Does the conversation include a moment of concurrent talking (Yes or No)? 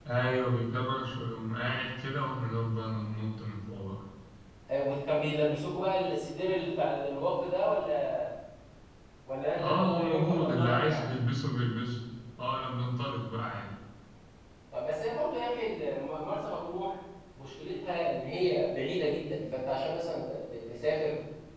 Yes